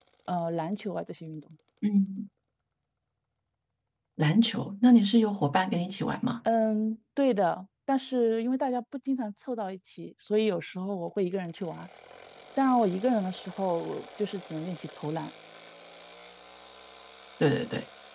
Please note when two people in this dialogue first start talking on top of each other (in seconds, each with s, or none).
none